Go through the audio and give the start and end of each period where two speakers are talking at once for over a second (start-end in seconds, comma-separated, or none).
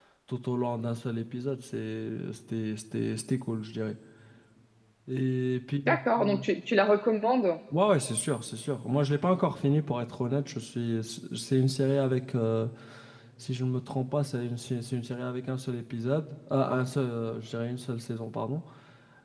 none